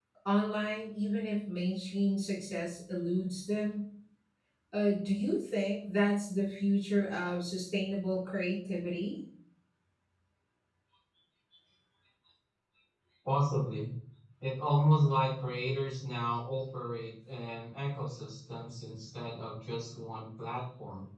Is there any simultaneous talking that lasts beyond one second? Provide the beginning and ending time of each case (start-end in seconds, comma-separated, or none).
none